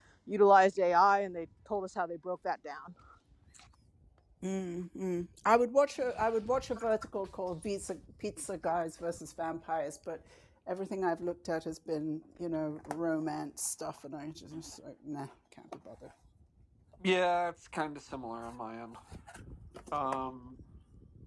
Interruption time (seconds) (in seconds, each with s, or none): none